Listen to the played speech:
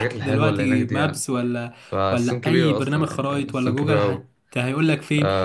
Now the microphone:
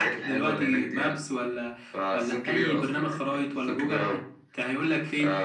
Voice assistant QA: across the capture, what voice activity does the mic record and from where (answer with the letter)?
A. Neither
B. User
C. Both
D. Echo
D